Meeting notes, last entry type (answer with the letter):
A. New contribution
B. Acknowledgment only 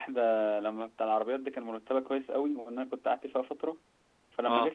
B